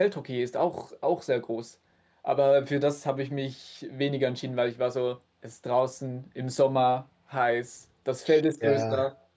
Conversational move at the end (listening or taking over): listening